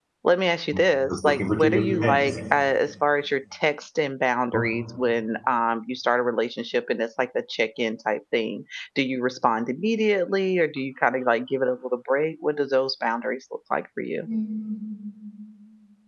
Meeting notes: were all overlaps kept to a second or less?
No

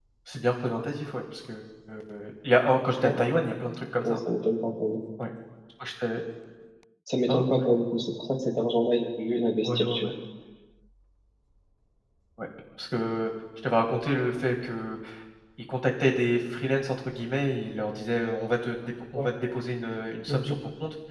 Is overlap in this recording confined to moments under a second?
Yes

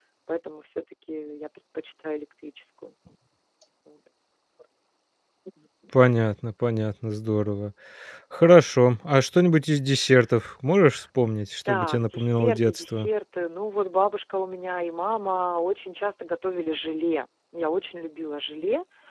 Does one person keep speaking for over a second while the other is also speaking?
Yes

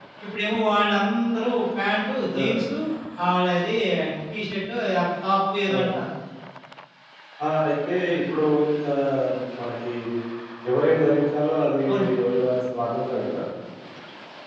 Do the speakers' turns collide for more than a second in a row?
No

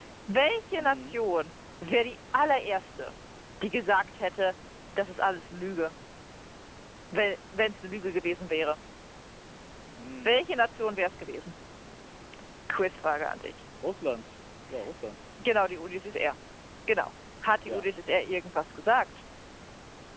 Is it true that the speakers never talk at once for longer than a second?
Yes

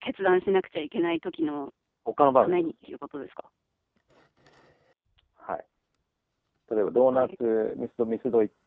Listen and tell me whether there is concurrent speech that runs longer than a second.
No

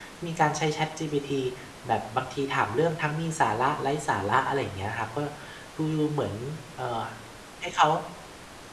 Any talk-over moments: No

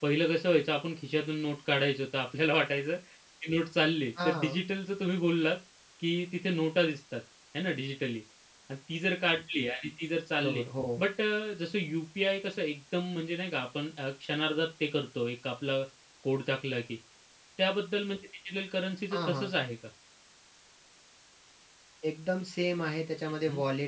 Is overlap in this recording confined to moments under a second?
Yes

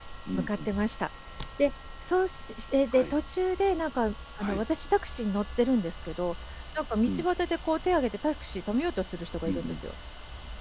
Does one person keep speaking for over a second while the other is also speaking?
No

